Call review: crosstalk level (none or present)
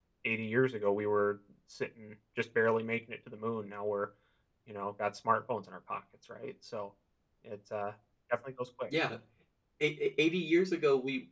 none